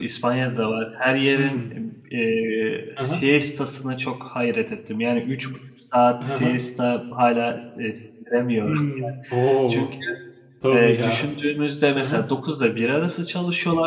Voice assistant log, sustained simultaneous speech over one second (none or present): none